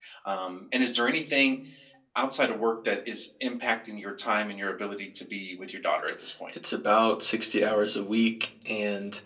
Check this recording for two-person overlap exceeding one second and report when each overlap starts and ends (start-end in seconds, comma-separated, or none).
none